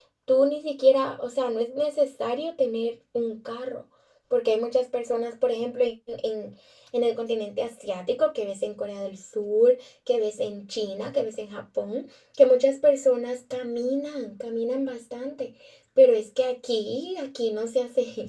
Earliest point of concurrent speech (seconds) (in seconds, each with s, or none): none